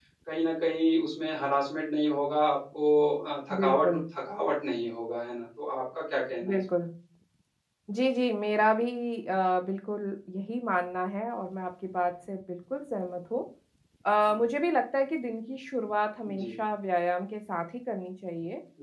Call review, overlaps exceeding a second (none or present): none